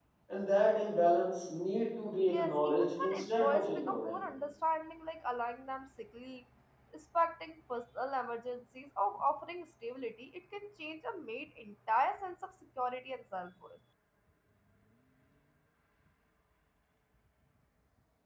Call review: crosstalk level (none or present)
present